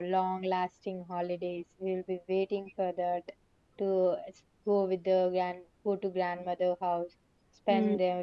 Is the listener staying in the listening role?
Yes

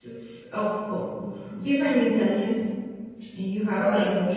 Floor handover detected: No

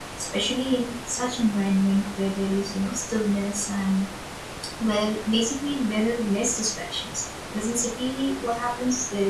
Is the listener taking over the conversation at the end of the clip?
No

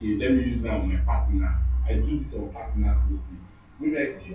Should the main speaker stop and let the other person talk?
No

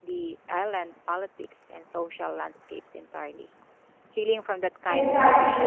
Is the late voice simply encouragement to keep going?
No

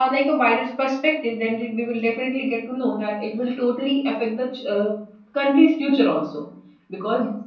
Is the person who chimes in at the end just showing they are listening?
Yes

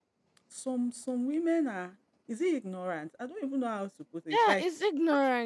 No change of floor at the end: No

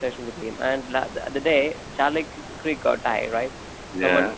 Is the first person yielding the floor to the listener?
No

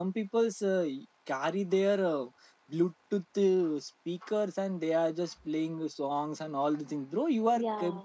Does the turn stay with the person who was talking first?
Yes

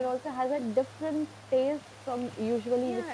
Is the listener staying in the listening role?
No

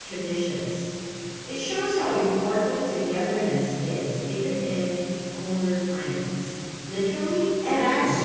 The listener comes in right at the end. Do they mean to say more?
Yes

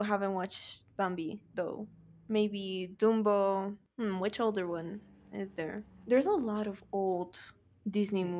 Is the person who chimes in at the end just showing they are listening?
No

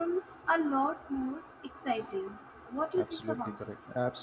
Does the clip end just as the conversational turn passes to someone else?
Yes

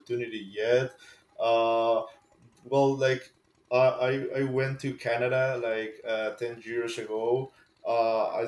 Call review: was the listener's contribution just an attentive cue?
Yes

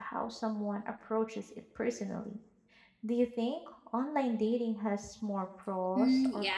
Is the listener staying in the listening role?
No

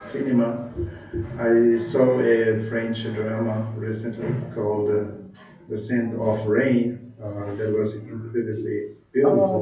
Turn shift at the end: Yes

